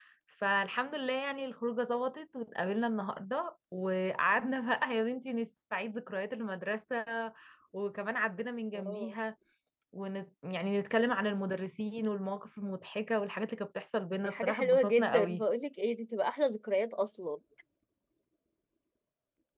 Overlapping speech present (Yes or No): Yes